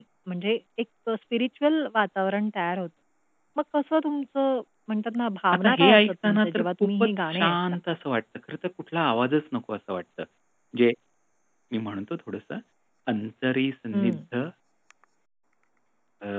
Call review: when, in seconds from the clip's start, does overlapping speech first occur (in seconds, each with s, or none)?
5.6 s